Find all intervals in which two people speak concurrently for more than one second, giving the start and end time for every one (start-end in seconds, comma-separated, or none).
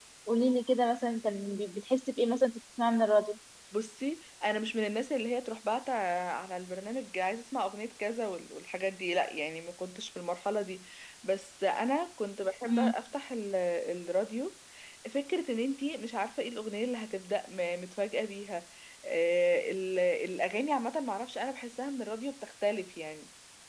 none